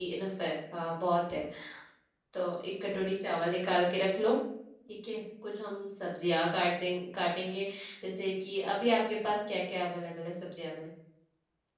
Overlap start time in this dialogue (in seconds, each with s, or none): none